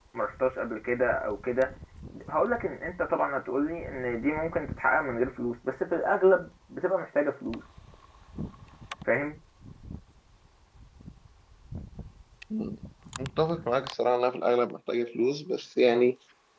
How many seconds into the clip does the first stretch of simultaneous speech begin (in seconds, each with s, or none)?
none